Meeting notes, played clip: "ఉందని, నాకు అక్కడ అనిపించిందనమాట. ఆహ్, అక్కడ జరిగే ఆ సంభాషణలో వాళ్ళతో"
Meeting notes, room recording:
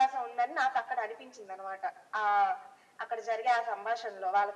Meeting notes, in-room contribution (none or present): none